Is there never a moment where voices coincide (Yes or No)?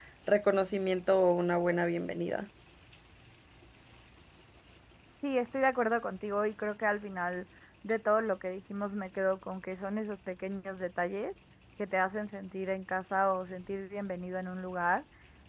Yes